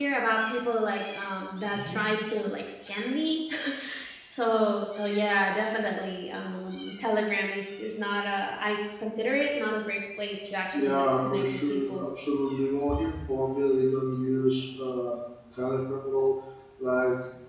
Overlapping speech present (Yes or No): Yes